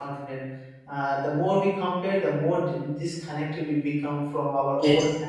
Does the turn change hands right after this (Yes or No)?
No